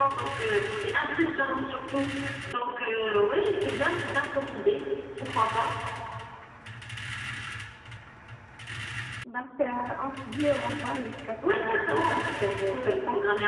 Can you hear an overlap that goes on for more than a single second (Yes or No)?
Yes